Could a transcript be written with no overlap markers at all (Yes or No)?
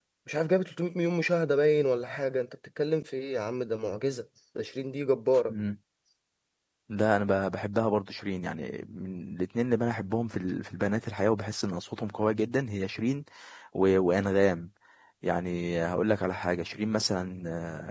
Yes